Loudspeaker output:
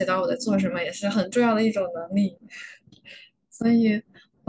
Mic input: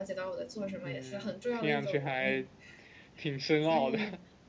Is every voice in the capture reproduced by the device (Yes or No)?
No